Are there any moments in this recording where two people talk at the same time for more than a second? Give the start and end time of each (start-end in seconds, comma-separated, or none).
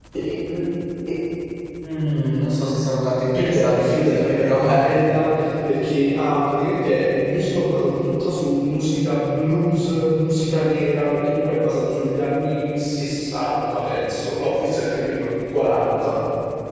3.3-4.8